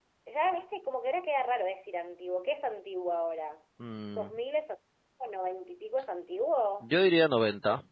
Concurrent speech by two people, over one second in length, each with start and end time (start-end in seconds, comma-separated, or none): none